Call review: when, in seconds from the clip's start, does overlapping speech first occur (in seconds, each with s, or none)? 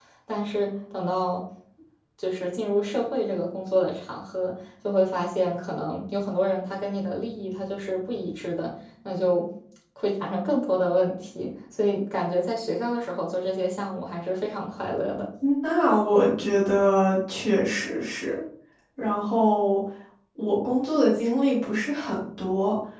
none